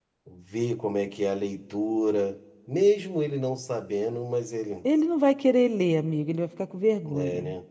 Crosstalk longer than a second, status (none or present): none